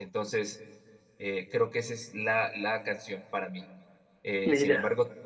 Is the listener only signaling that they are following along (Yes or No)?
Yes